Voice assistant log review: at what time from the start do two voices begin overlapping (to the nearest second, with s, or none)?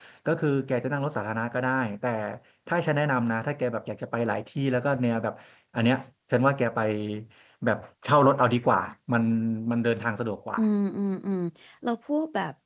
none